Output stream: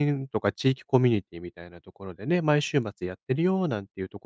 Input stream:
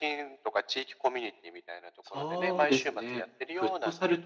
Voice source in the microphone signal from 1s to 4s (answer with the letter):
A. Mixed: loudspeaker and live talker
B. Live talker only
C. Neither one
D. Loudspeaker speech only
A